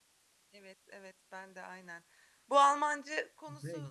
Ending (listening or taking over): listening